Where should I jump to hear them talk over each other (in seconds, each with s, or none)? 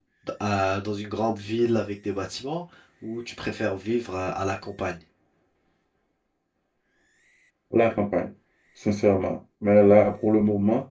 none